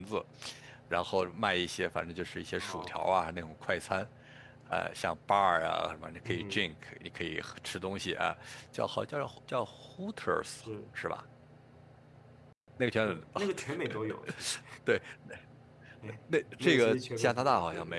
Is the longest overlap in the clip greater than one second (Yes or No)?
Yes